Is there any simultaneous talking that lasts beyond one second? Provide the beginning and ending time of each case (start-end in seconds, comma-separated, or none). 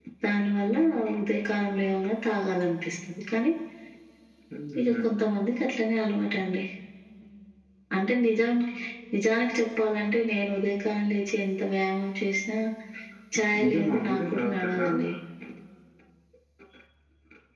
13.6-14.9